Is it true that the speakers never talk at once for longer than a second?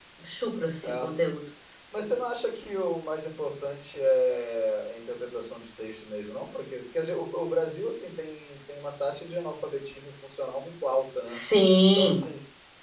Yes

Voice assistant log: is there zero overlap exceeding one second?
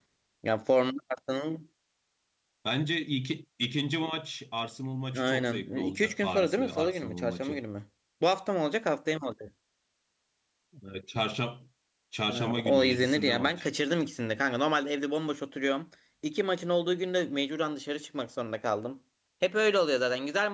No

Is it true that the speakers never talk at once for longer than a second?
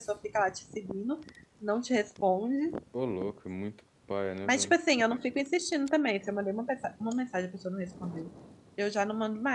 Yes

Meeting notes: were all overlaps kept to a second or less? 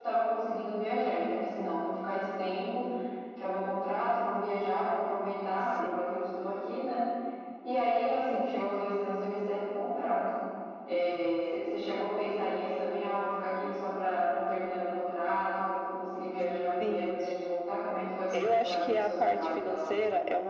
No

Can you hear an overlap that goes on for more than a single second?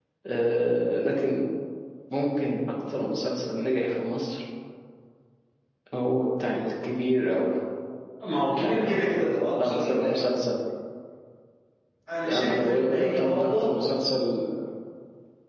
Yes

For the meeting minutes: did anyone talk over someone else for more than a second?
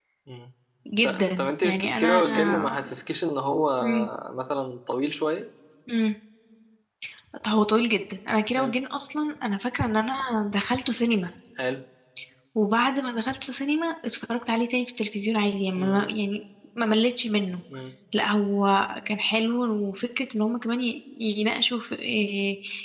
Yes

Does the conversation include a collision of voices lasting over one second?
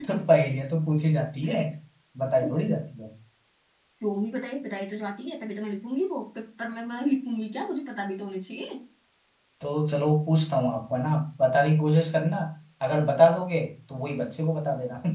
No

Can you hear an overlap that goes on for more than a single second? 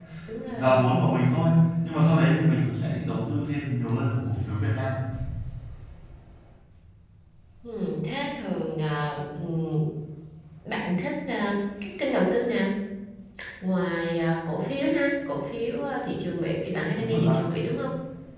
No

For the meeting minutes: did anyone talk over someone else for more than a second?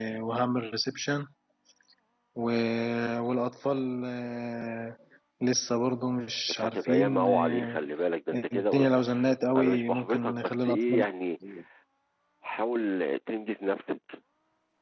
Yes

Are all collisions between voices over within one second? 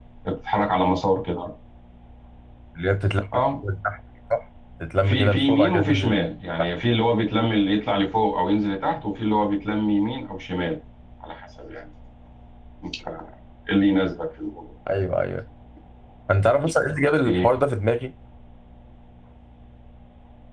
No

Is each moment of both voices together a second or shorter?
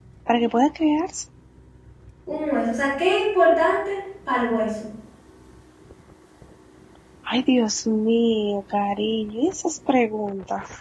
Yes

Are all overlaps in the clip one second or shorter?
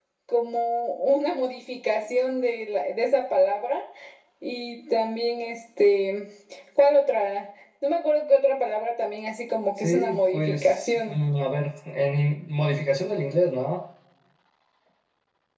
No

